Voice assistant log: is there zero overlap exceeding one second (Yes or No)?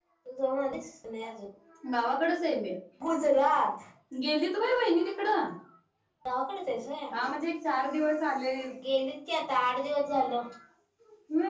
Yes